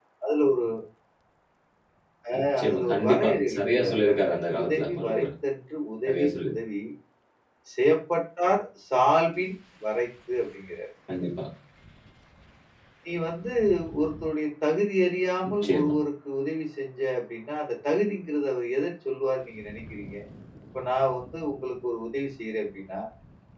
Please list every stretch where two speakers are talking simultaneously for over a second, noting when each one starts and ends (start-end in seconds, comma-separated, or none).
2.4-5.3